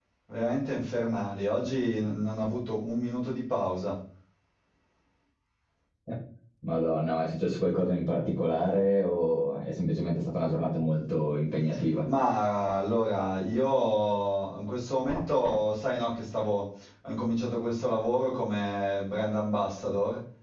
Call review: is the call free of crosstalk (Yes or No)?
Yes